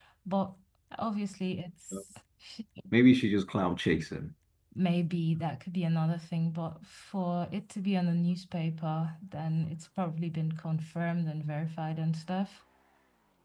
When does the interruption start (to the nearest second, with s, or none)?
none